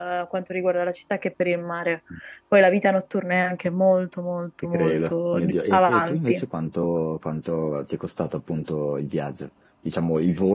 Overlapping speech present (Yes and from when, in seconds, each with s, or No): Yes, from 4.7 s